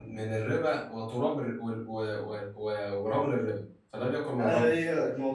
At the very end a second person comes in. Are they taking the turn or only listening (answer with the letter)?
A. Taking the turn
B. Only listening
A